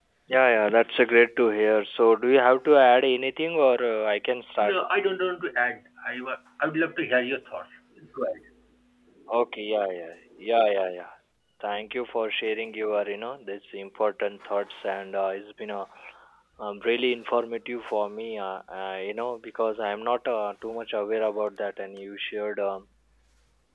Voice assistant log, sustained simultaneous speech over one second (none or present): none